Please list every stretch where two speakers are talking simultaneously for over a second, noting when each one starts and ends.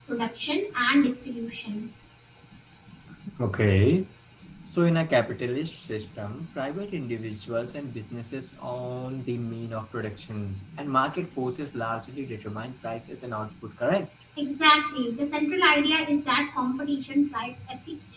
none

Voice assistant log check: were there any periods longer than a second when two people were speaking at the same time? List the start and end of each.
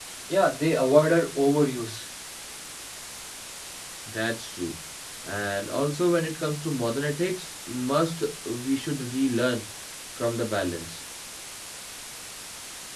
none

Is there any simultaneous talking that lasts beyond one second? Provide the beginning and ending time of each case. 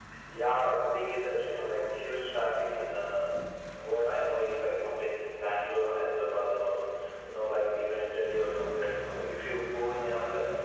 none

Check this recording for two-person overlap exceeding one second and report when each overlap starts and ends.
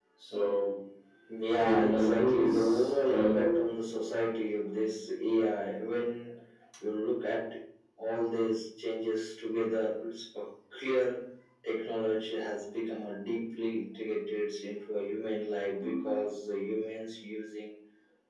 1.6-3.5

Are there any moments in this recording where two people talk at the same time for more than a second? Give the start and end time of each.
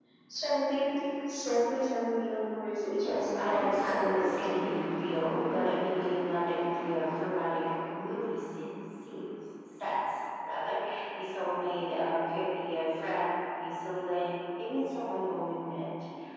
3.0-4.6

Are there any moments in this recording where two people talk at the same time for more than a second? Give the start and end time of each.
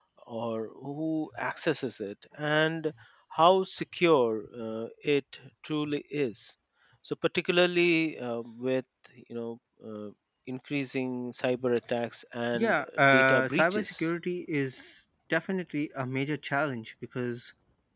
12.5-14.1

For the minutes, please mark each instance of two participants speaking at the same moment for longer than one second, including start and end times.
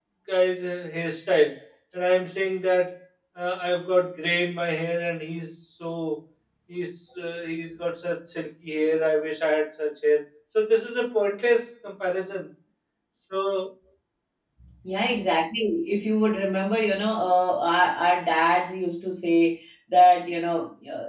none

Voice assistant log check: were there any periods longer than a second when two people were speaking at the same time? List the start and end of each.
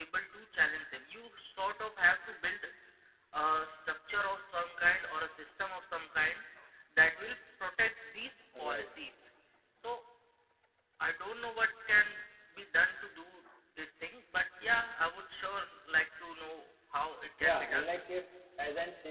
none

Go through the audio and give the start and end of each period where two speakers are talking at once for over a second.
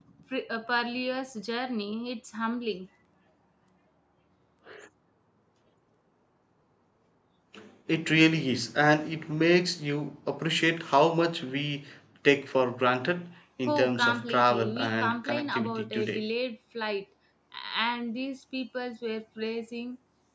13.7-16.2

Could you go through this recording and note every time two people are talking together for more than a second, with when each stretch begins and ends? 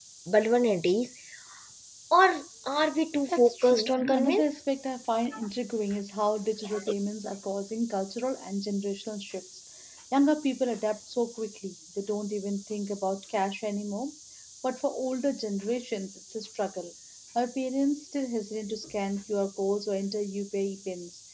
3.3-4.6

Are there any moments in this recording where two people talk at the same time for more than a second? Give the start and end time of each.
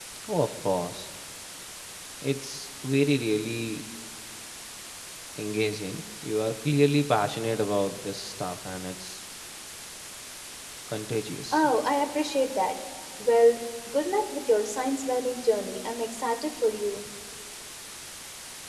none

